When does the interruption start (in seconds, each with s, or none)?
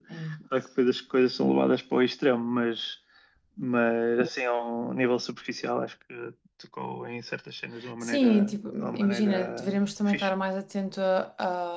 8.0 s